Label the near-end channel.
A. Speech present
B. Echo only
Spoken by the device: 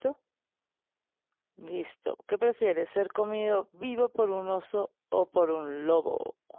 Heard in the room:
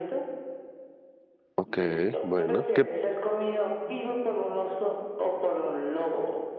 A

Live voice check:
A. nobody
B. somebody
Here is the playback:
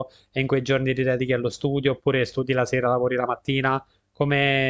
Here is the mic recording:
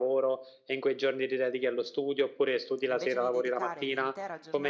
B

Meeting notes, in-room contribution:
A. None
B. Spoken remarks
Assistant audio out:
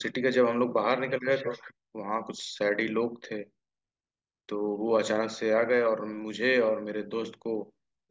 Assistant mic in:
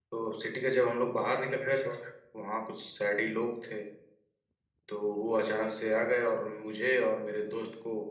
A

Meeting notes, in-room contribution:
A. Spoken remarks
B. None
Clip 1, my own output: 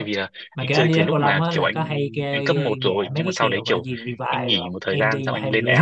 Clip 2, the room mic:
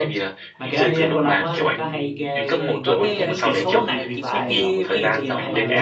A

